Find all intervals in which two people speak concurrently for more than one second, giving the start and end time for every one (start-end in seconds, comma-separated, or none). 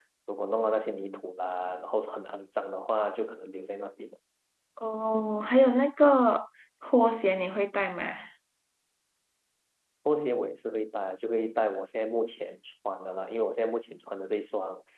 none